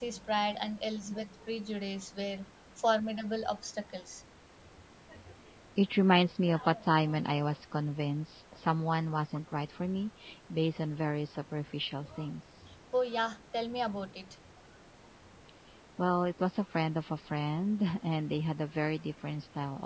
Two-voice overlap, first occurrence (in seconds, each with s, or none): none